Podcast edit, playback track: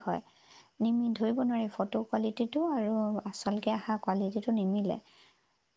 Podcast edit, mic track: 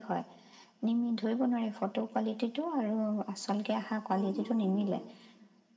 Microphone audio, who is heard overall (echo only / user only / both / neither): both